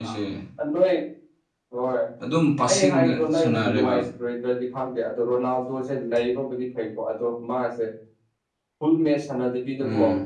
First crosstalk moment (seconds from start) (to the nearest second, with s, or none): 3 s